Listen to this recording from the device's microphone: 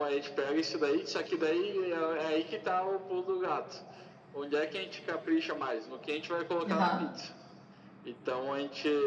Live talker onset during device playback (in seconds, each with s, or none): 6.7 s